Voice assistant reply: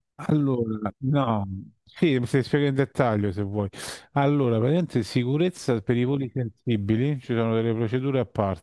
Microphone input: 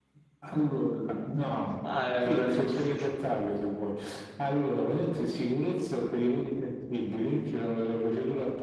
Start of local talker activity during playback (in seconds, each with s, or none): 1.8 s